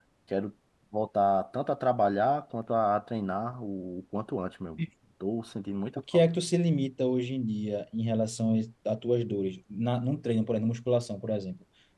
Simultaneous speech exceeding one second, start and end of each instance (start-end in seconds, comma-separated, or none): none